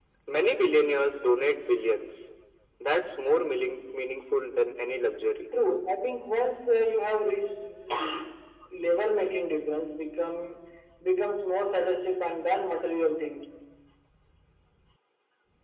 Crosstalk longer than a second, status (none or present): none